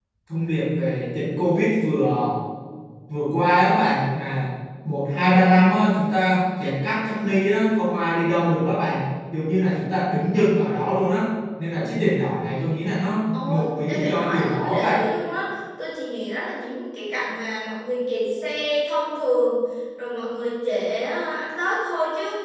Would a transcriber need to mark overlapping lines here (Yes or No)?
Yes